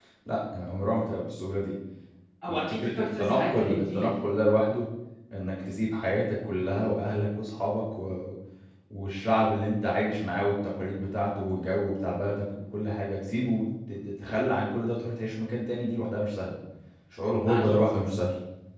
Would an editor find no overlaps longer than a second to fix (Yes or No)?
No